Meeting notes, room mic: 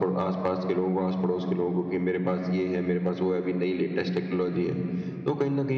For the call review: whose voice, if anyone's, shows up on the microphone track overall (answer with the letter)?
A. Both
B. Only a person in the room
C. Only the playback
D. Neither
C